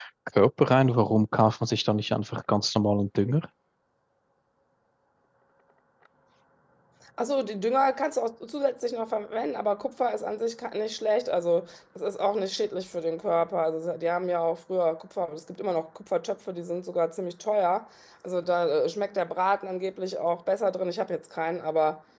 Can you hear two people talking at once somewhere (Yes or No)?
No